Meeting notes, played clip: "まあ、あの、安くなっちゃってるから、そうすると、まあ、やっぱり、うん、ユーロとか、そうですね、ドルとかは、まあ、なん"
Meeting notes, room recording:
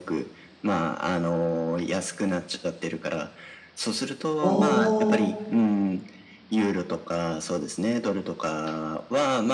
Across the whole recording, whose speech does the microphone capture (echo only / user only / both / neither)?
both